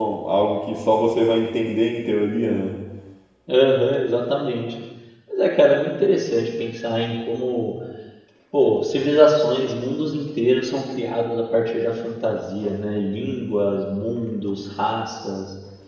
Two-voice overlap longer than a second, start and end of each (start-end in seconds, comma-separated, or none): none